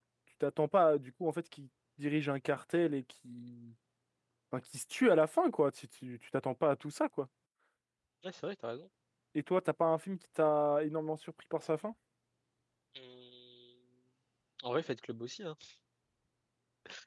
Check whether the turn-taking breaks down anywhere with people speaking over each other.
No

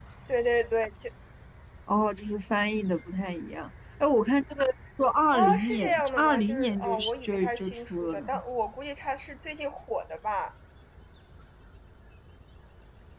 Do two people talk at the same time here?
Yes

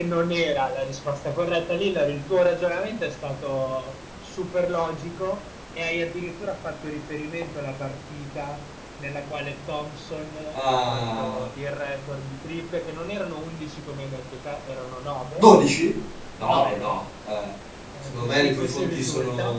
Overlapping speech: Yes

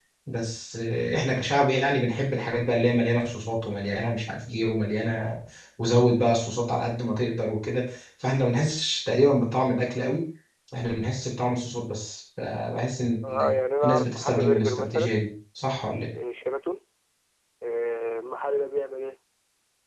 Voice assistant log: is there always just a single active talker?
No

